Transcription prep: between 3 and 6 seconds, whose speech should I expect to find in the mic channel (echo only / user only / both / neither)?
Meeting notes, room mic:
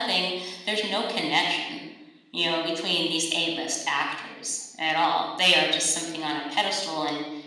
echo only